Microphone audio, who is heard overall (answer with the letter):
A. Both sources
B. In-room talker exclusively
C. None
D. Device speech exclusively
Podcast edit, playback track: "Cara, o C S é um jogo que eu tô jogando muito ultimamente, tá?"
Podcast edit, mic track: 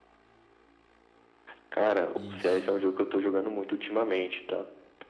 A